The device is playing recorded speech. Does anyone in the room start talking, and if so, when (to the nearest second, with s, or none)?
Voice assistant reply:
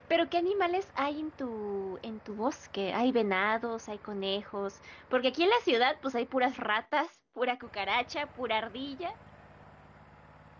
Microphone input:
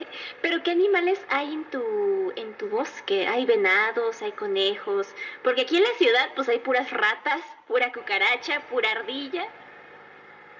none